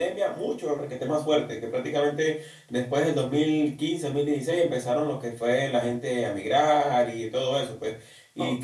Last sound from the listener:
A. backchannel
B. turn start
B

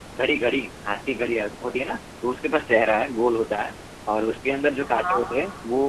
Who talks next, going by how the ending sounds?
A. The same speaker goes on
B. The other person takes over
A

